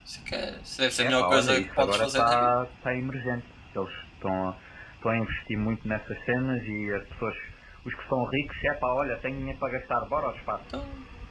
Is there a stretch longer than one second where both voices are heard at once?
Yes, from 1.0 s

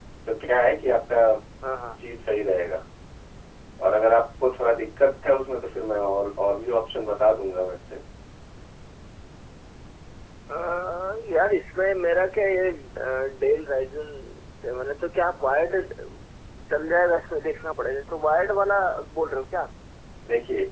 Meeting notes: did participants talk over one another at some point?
No

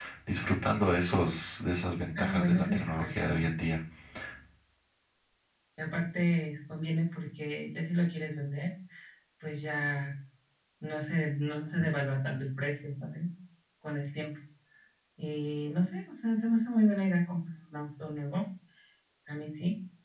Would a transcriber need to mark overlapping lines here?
Yes, from 2.2 s

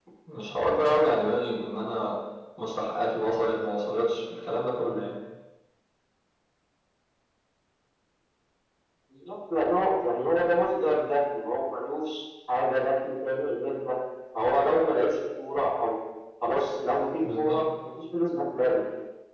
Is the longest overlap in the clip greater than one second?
No

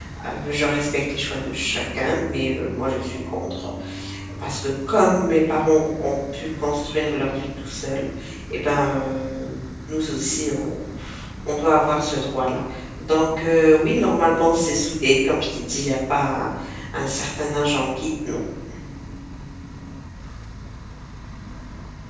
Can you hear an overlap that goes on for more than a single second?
No

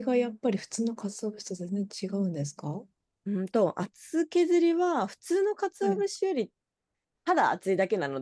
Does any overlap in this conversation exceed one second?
No

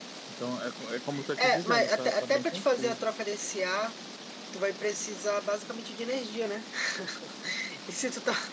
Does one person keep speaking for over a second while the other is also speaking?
Yes, from 1.1 s

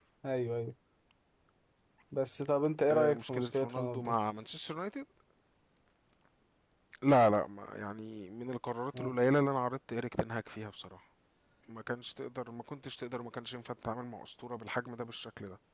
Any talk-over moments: Yes, from 2.9 s

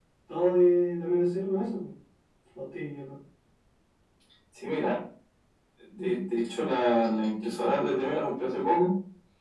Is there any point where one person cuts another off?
No

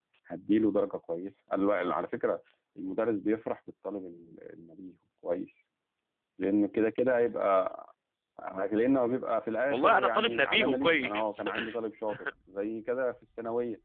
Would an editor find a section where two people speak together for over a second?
Yes, from 9.7 s

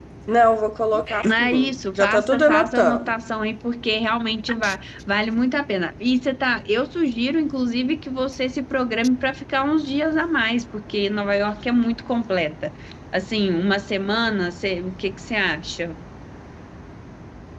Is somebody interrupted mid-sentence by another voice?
Yes, from 1.2 s

